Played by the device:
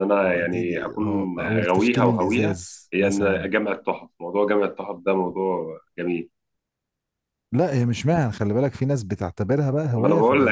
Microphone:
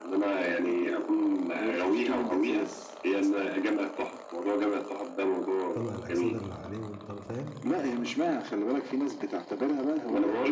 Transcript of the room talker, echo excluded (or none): يطلع الأكسدة اللي عليه ويطلع فاهم